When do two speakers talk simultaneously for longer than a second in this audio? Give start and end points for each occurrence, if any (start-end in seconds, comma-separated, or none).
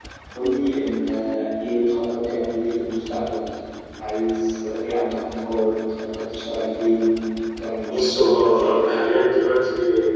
7.9-9.1